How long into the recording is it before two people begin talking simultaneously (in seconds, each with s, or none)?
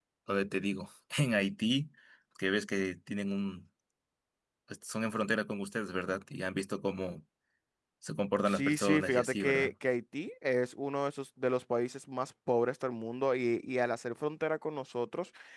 8.5 s